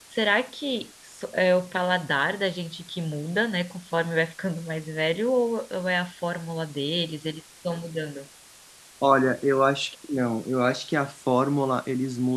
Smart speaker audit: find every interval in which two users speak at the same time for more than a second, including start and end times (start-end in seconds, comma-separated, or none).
none